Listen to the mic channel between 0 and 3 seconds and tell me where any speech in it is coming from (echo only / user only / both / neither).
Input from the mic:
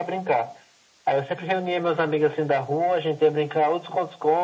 echo only